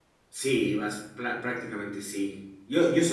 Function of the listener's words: listening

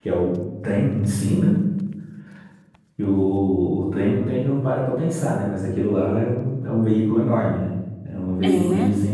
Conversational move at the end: listening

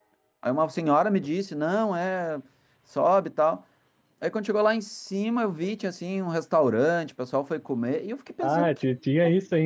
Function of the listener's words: taking over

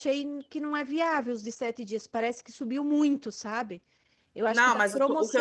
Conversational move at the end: taking over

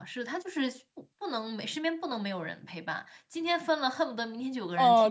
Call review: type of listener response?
taking over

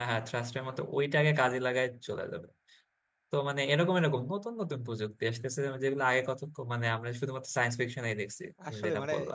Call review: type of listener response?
taking over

